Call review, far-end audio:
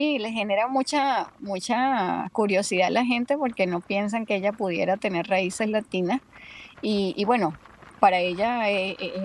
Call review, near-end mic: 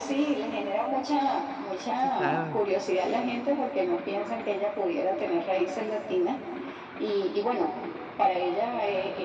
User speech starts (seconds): 2 s

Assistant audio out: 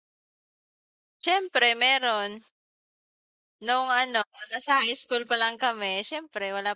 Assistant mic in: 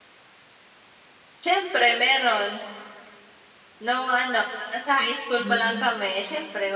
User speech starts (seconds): 5 s

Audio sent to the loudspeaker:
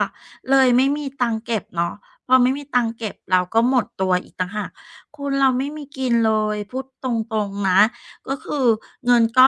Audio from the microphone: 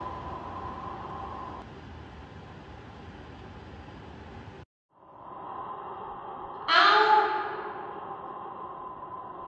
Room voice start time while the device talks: 7 s

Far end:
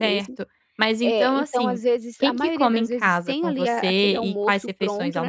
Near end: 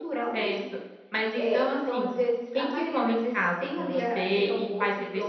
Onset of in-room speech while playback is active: none

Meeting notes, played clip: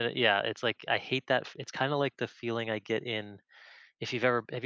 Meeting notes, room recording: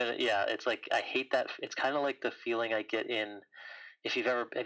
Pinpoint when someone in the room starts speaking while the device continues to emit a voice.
none

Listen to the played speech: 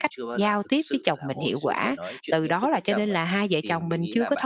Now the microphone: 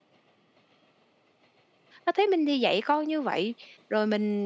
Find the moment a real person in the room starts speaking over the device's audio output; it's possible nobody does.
2 s

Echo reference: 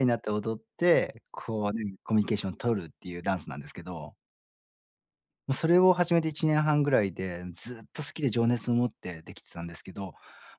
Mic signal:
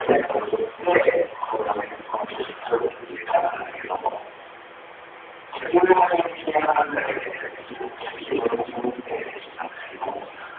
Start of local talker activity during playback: none

